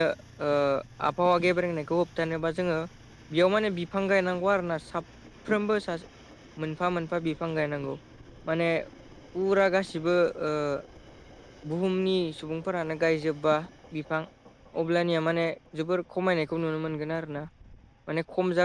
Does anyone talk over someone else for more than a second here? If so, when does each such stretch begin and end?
none

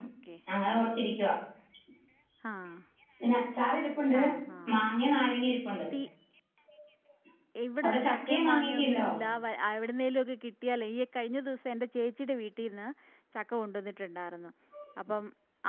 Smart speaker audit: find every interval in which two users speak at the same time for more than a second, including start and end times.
7.8-9.1

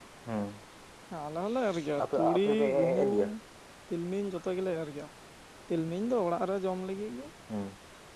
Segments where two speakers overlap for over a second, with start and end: 2.0-3.3

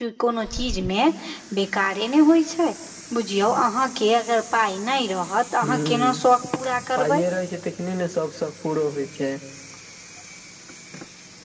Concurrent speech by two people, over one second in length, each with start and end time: none

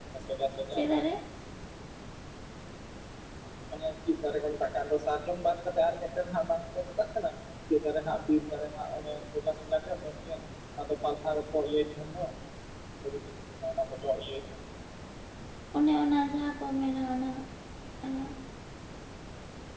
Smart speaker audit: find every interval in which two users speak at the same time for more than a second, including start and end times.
none

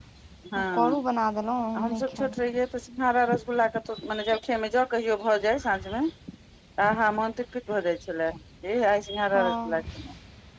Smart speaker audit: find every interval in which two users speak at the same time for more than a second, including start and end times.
none

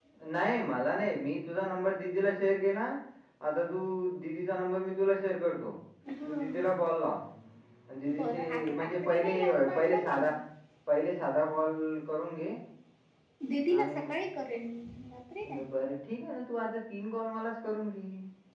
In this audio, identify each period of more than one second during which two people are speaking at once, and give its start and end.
8.2-10.2

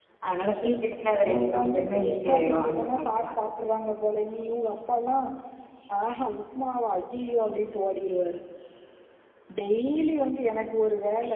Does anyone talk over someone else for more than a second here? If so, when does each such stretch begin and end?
1.3-3.3

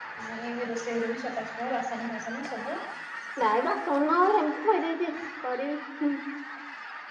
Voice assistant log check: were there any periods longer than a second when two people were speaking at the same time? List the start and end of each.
none

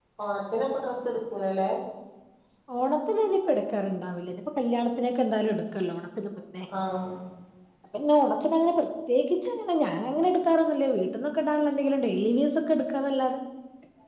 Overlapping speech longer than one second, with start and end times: none

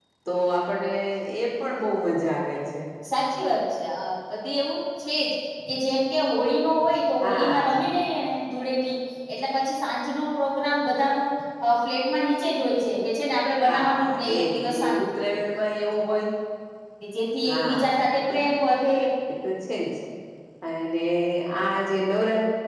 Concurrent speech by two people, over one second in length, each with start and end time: 13.7-15.0

